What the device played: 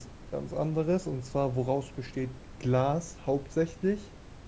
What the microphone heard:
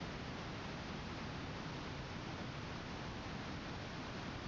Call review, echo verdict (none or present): none